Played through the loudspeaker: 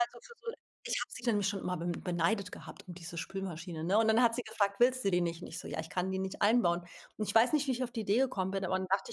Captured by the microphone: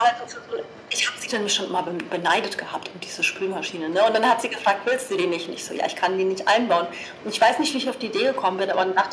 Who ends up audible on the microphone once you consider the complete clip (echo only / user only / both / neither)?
echo only